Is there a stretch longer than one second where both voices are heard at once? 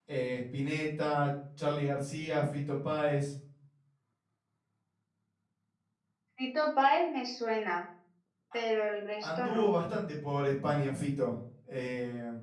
No

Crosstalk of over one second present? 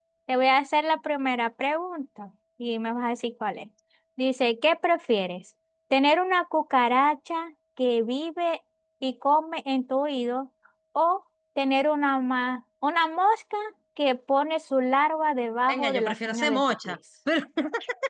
Yes, from 15.7 s

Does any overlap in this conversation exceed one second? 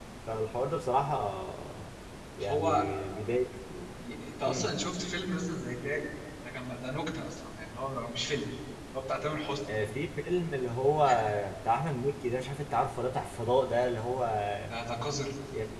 No

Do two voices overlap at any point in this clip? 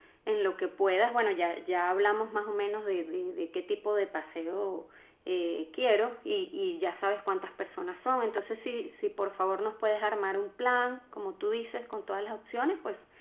No

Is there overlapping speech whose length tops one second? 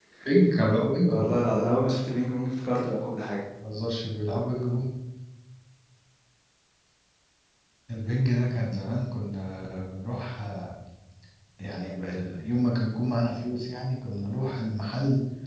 No

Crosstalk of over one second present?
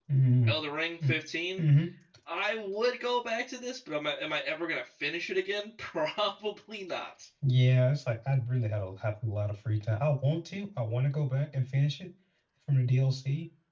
No

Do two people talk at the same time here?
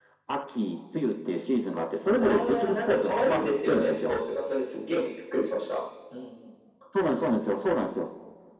Yes, from 2.2 s

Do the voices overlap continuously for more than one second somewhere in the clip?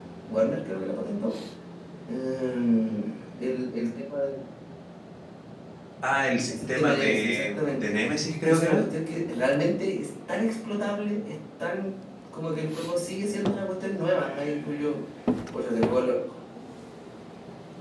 Yes, from 6.5 s

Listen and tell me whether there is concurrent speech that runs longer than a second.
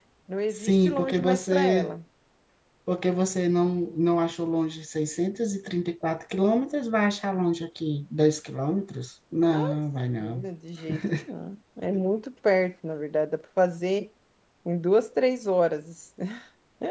Yes, from 0.6 s

